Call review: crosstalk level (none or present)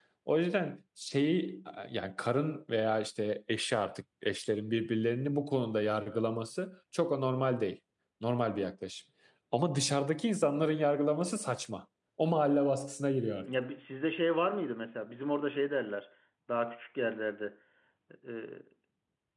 none